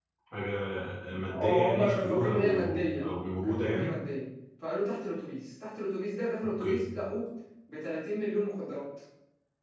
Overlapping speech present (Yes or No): Yes